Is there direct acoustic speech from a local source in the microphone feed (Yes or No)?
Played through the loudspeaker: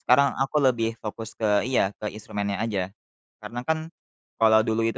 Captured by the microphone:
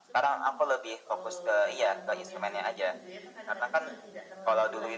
Yes